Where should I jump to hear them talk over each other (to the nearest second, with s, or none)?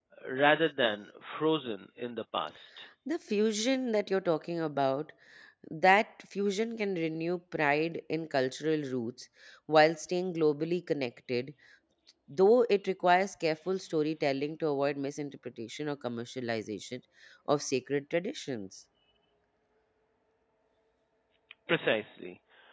none